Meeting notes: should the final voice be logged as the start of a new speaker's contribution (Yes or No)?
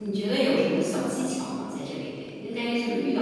No